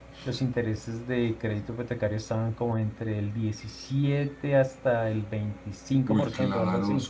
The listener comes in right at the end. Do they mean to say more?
Yes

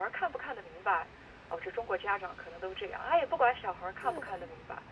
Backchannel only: Yes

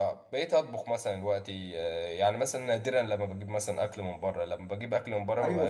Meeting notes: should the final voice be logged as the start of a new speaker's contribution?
Yes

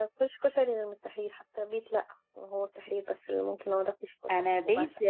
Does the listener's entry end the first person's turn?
Yes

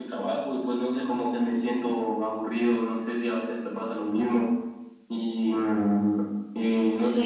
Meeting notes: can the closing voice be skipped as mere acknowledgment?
No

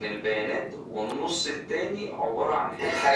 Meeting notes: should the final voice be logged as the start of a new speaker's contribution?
No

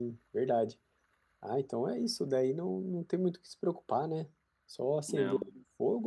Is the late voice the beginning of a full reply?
No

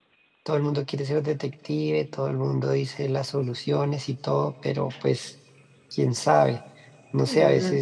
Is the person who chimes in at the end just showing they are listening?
Yes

